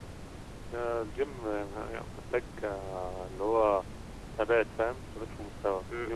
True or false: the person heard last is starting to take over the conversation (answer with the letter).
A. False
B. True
B